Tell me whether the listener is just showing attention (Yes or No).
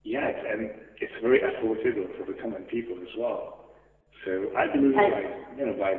Yes